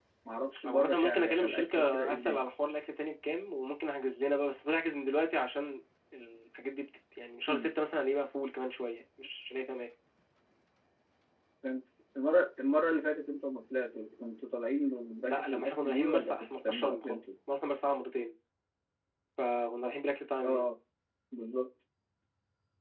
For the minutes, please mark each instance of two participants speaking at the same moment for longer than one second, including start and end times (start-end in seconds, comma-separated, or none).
0.7-2.4, 15.2-17.3